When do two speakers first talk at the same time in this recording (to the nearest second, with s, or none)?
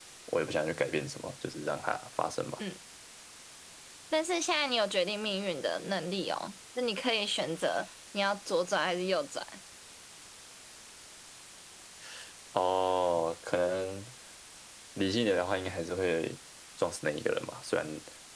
none